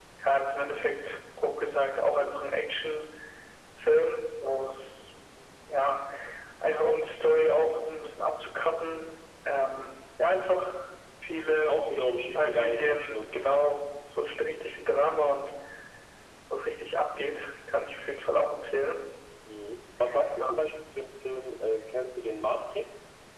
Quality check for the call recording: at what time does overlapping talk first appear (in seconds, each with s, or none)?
12.4 s